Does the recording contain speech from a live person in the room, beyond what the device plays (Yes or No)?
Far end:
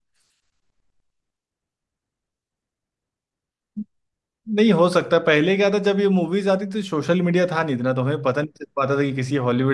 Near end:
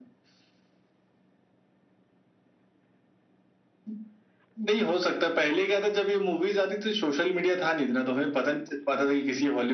No